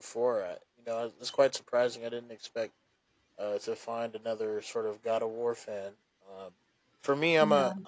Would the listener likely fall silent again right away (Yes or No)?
Yes